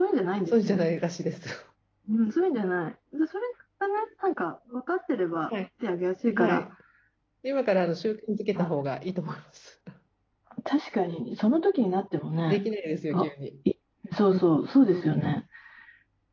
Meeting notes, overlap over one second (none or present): none